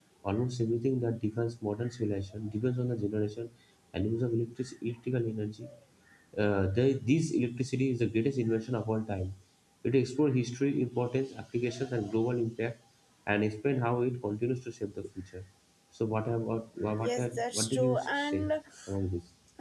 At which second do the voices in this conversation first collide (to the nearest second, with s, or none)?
17 s